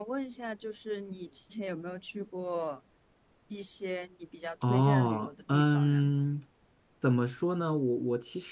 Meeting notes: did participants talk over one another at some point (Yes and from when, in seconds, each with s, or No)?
Yes, from 4.6 s